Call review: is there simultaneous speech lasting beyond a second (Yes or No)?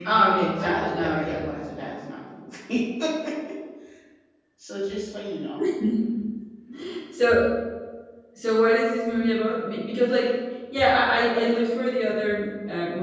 Yes